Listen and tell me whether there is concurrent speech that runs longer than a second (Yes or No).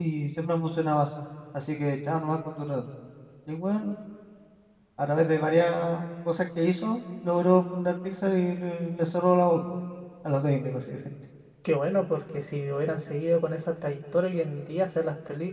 No